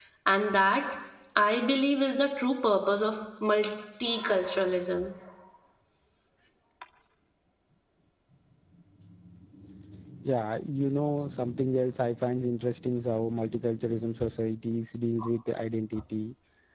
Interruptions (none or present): none